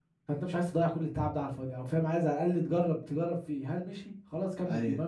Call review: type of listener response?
listening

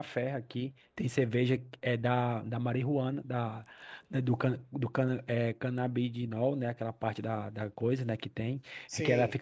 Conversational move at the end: listening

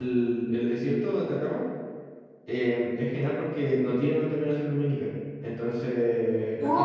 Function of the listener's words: taking over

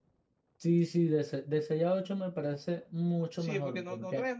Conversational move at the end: taking over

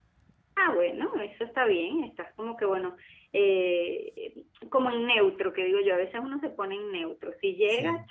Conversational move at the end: listening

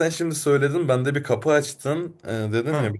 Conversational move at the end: listening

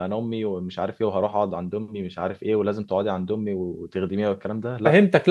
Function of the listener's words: taking over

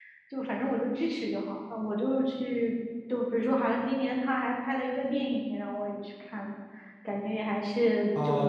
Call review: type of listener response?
taking over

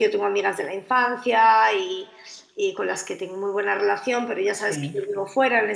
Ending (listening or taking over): listening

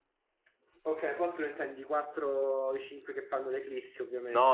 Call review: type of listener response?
taking over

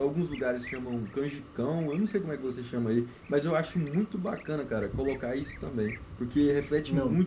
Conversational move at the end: listening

